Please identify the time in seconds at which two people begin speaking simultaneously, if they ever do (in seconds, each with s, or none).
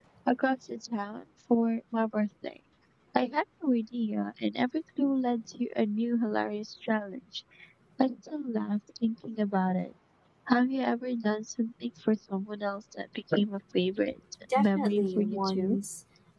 14.4 s